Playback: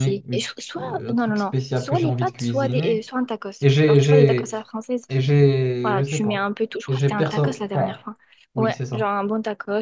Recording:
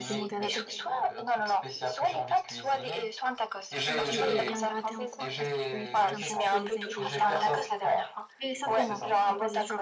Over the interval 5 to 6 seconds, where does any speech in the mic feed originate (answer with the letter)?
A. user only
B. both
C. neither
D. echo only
B